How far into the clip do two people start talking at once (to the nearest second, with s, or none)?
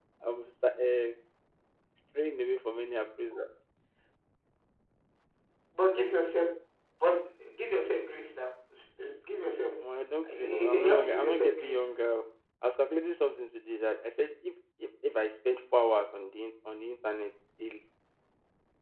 10 s